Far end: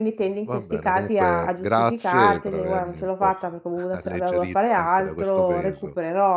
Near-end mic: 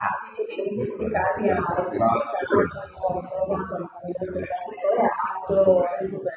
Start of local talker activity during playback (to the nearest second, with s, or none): none